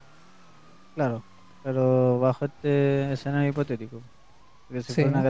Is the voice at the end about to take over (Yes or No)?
No